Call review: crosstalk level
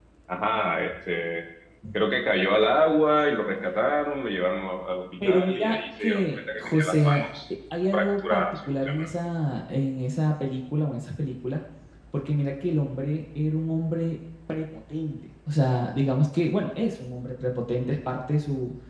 present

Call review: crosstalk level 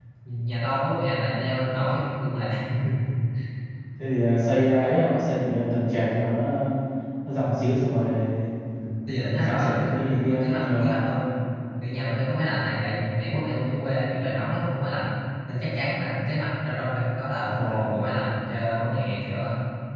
present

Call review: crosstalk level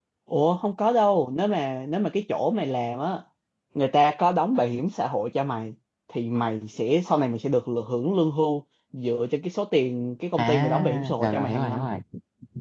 present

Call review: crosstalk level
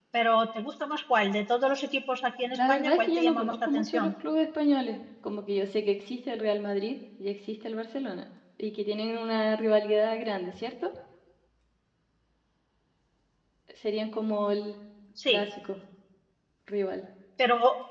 present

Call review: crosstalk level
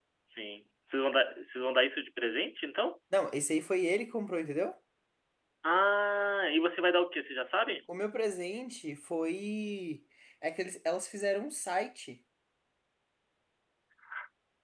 none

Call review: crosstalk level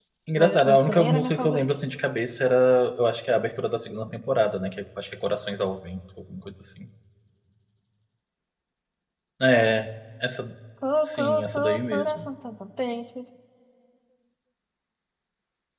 present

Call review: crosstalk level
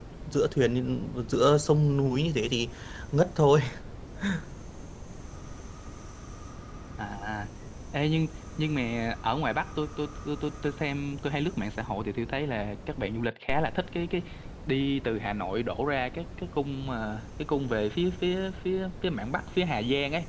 none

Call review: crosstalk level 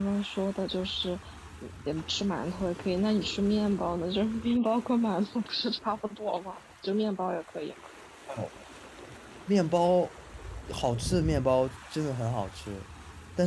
none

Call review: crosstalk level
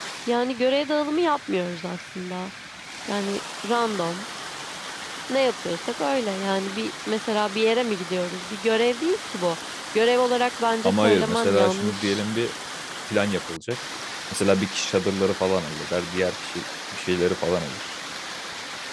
present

